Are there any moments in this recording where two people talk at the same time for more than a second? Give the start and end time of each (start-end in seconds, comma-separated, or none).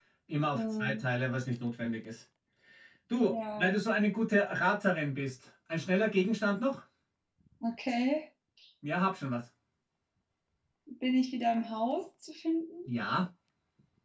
none